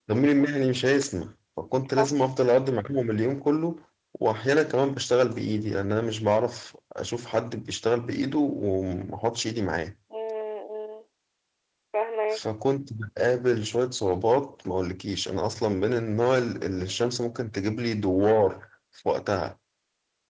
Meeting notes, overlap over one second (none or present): none